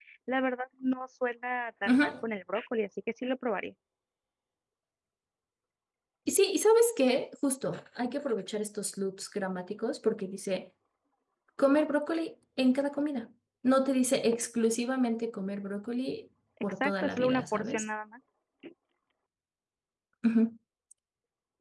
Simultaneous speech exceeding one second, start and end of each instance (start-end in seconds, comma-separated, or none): 16.6-17.8